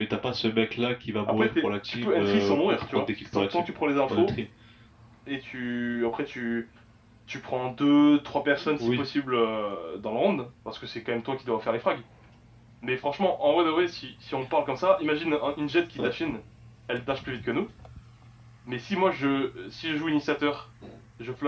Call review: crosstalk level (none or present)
present